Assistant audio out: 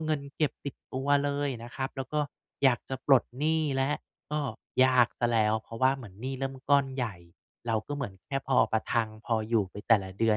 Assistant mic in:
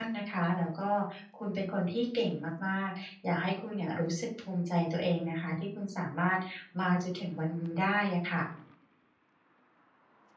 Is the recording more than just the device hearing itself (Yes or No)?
Yes